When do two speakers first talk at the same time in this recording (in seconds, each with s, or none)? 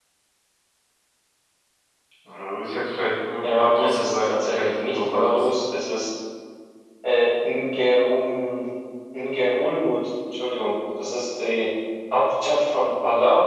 3.4 s